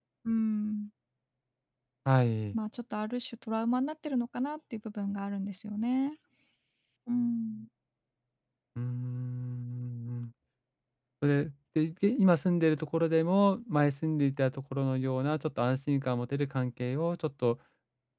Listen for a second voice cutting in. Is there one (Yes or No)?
No